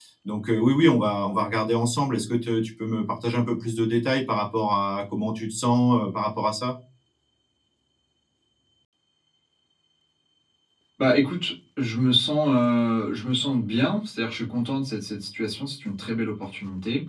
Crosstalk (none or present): none